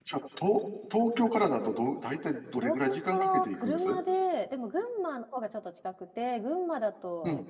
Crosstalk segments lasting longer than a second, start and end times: 2.6-4.0

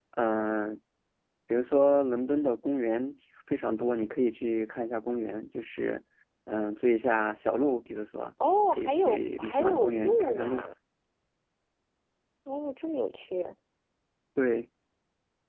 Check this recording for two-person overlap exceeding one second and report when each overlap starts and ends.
8.7-10.7

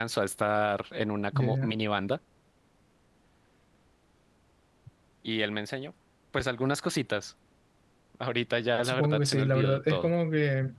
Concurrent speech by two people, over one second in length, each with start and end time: 8.8-10.1

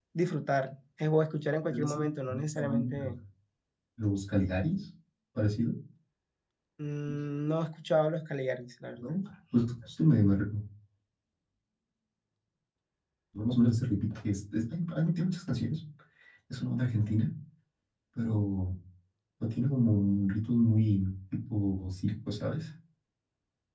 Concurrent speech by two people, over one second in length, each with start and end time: 1.7-3.0

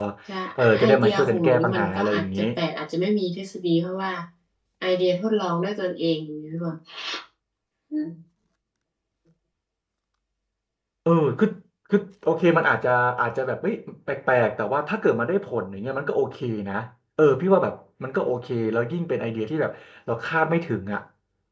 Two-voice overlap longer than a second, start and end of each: 0.8-2.4

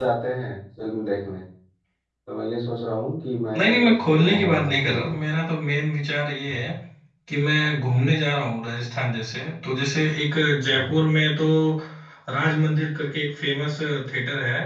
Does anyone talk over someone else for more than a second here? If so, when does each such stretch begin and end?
3.6-5.1

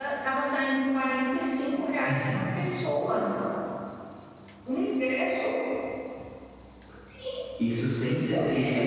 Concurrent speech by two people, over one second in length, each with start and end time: none

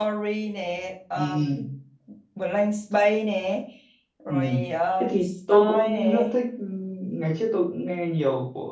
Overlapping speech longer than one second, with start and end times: 5.0-6.3

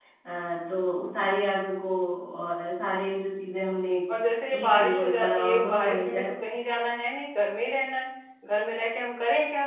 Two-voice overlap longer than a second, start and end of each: 4.5-6.3

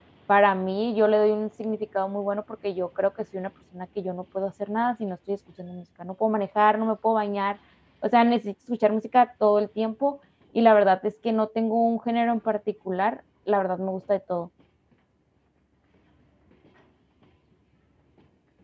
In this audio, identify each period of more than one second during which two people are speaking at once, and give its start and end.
none

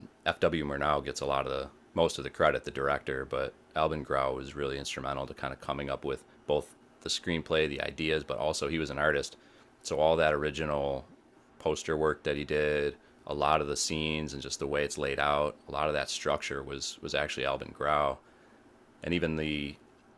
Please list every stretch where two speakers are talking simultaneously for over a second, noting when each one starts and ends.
none

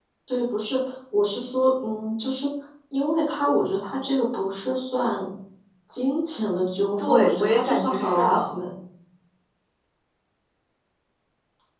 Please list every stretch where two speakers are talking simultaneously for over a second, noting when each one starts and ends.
7.0-8.6

